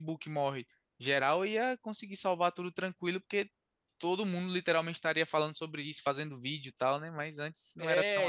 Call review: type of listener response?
taking over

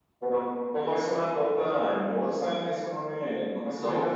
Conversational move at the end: taking over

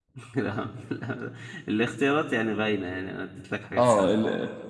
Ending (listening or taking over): taking over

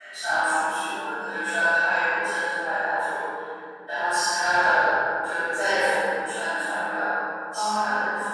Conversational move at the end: taking over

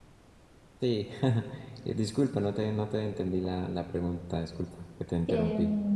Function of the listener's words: taking over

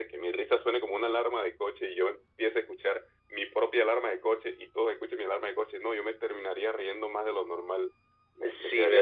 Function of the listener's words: taking over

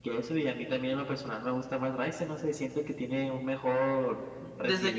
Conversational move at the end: taking over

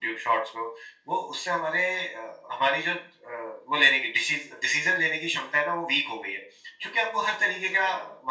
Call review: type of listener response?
listening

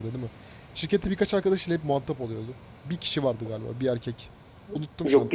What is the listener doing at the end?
taking over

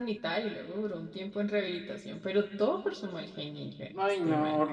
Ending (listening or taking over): taking over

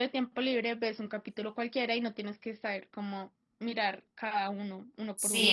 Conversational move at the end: taking over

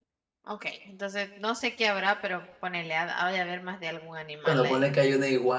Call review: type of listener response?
taking over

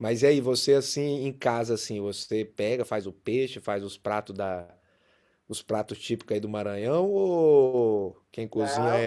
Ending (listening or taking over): taking over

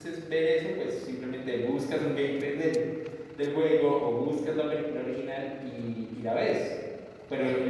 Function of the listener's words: listening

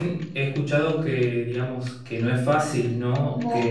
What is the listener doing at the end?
listening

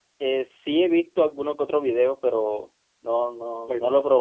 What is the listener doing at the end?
taking over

